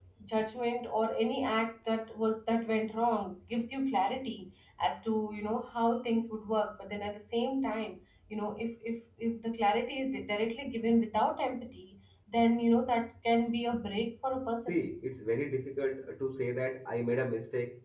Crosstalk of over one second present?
No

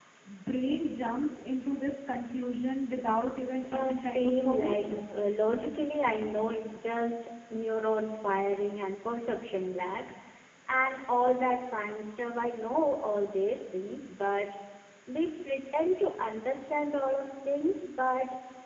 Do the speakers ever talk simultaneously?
Yes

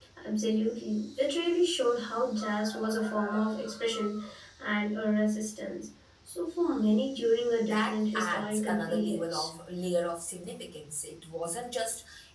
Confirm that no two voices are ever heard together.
No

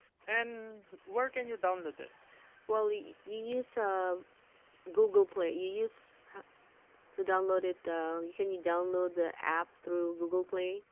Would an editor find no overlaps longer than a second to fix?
Yes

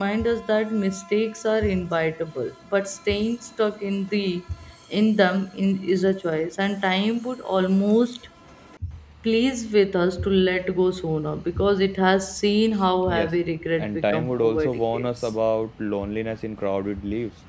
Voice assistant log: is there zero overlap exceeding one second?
No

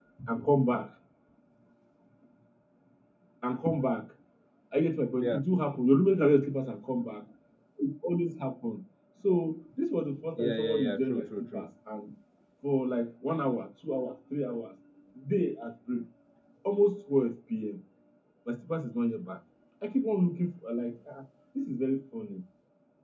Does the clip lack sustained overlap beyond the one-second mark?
No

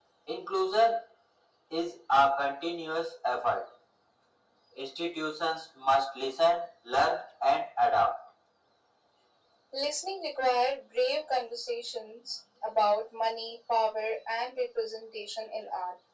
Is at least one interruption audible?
No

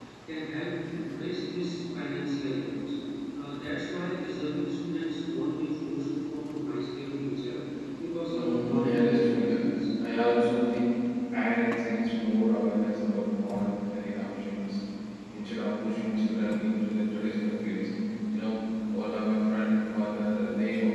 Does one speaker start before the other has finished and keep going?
Yes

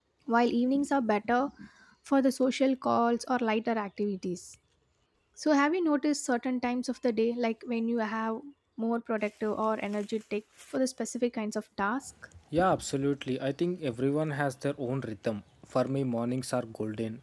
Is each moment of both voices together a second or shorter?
Yes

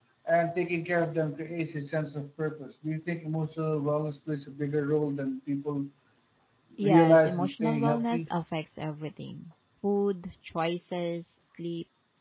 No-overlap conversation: No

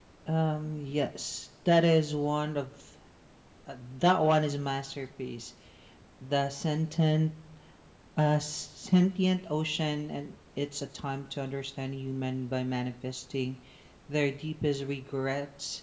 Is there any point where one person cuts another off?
No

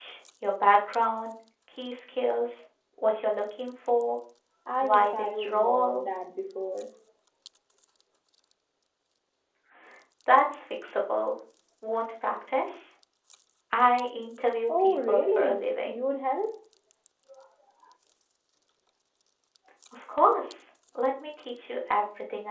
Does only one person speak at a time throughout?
No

